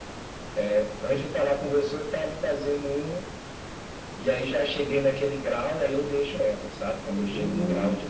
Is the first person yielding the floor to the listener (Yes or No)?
No